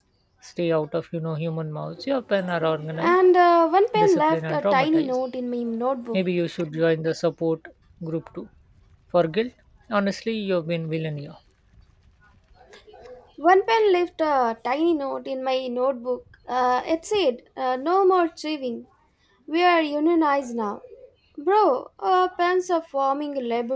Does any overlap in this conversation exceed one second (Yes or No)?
Yes